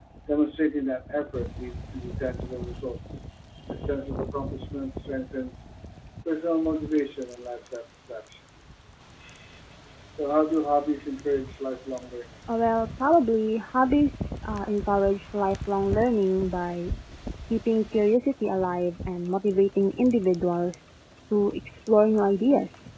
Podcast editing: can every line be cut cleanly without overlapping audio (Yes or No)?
Yes